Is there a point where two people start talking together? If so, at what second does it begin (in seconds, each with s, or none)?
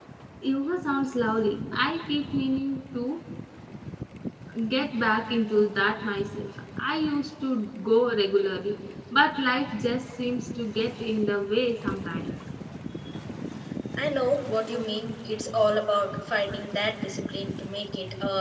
none